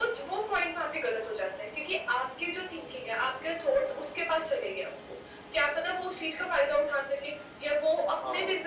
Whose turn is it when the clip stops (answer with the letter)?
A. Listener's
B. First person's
B